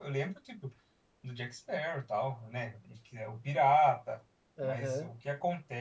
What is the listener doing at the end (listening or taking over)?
listening